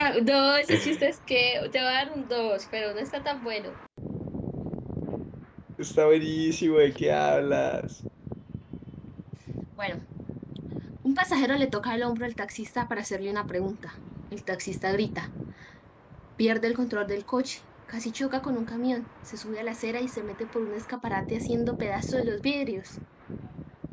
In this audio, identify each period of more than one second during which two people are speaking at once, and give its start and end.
none

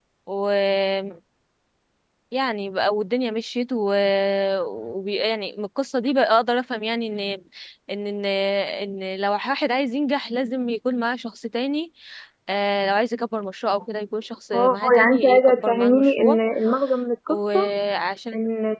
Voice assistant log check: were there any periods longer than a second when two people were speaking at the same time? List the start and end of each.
14.5-16.4

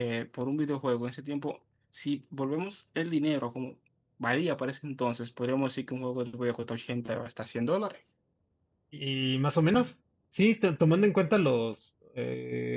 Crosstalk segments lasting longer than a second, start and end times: none

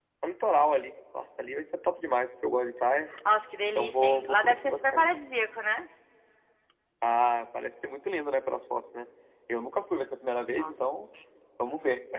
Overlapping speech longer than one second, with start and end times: 3.8-5.1

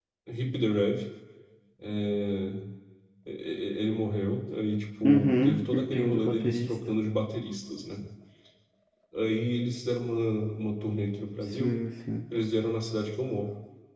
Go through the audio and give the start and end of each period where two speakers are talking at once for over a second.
5.0-6.7

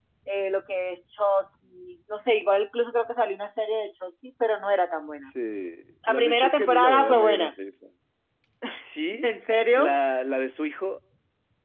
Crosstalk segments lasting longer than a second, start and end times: 6.1-7.5

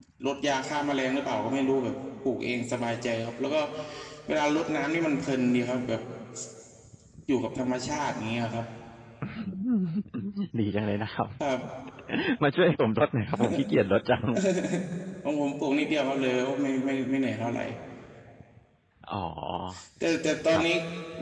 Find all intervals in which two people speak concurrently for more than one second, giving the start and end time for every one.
none

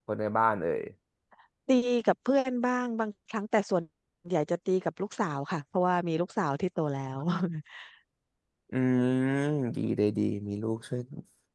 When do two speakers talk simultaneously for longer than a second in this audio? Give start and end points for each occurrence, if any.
none

